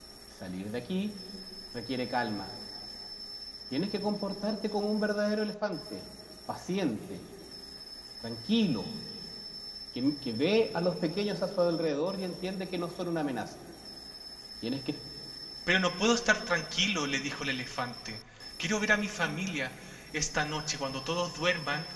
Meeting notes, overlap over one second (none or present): none